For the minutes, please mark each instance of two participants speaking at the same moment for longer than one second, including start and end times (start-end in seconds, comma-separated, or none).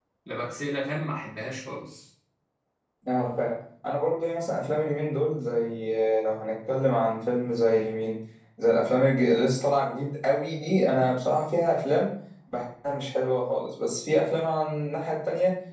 none